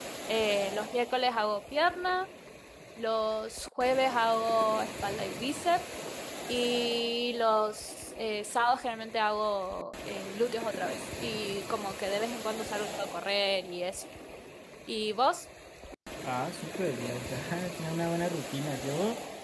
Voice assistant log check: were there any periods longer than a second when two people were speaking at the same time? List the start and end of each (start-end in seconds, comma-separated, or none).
none